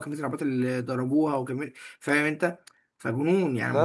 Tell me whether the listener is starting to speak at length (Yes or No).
Yes